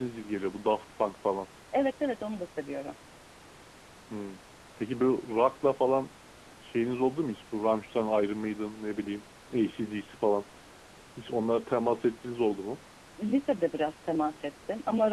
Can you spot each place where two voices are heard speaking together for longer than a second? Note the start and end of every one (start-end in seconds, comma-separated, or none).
none